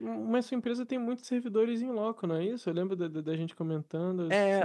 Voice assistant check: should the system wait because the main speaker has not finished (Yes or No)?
No